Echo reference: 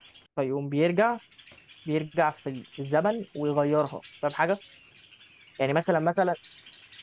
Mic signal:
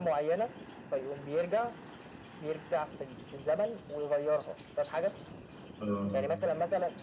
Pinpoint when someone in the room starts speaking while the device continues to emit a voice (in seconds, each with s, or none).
5.8 s